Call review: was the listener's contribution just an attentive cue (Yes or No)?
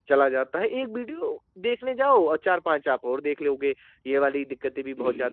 Yes